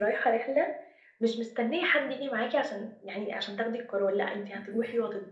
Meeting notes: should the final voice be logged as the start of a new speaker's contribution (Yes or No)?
No